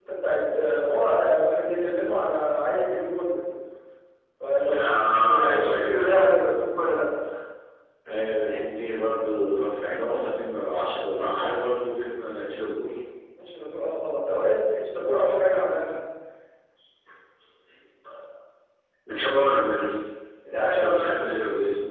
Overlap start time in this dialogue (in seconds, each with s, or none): 4.8 s